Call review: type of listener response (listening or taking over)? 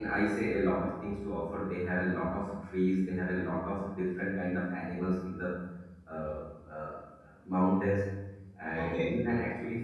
listening